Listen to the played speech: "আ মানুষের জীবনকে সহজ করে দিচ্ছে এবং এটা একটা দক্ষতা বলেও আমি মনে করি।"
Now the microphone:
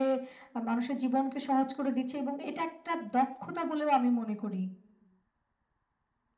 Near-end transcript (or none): none